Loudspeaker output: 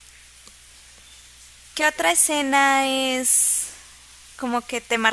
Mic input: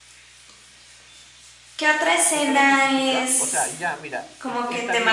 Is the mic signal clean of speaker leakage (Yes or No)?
No